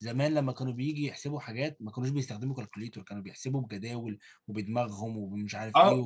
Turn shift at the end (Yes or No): Yes